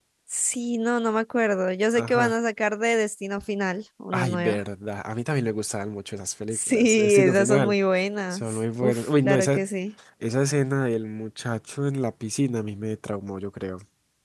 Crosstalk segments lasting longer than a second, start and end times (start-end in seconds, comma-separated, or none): 6.5-7.7, 8.3-9.6